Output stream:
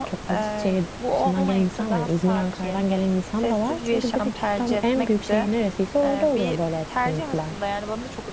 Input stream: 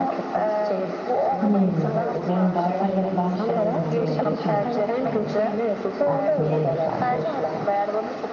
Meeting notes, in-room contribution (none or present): present